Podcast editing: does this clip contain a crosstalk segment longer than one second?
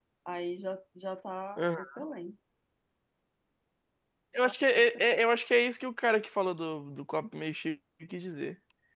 No

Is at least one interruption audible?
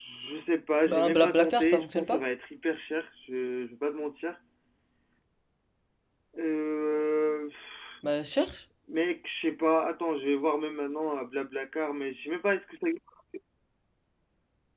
Yes, from 0.9 s

